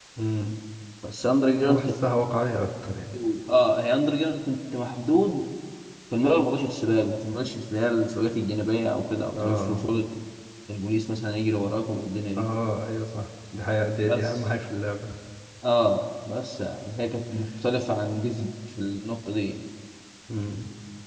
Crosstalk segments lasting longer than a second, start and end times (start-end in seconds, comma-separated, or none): none